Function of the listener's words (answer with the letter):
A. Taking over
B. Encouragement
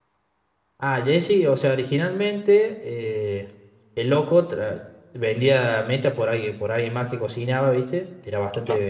B